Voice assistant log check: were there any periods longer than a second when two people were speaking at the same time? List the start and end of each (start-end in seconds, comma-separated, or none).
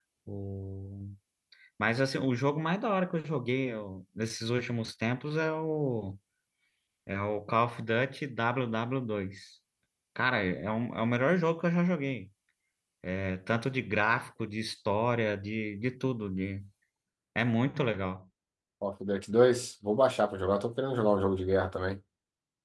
none